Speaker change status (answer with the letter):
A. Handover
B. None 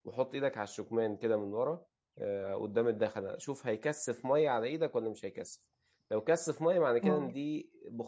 B